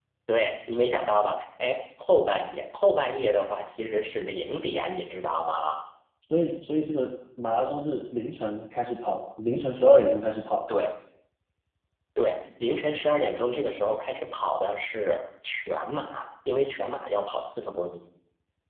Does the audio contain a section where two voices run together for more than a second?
No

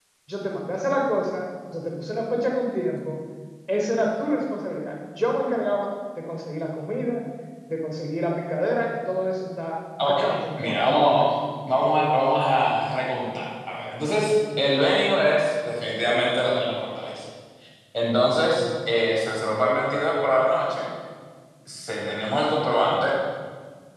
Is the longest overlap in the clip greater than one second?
Yes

